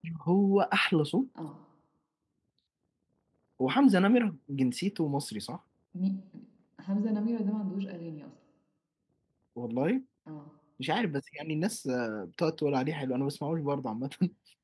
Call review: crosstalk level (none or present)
none